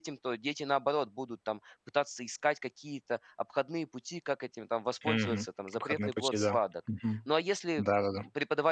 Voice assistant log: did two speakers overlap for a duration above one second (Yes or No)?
Yes